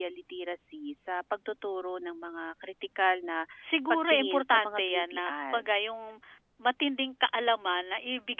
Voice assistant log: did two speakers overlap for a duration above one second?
Yes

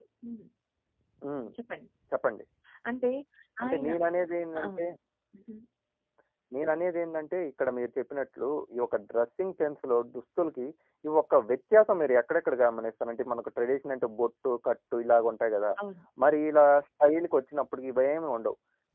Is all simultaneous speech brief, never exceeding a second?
Yes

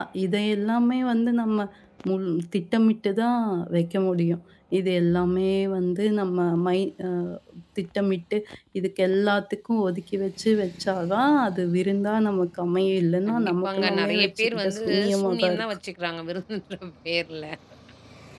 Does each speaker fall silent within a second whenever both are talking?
No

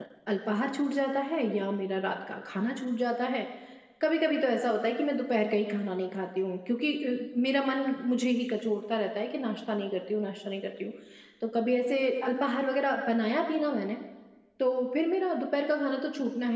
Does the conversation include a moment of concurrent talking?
No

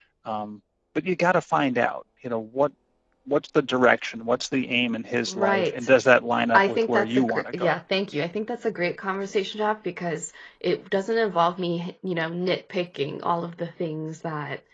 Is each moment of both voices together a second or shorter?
No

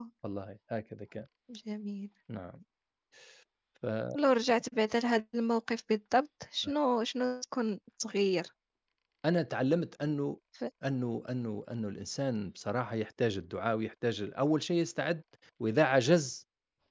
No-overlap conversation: Yes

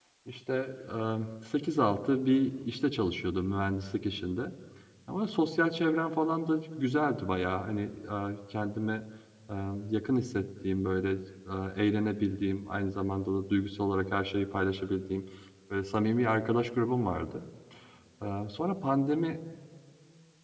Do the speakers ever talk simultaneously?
No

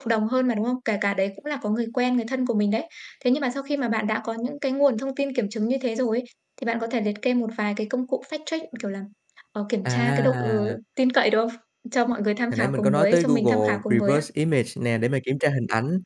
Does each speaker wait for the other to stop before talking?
No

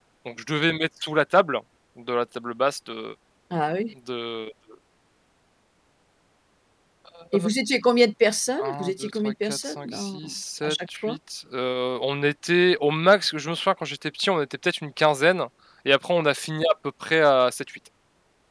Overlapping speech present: Yes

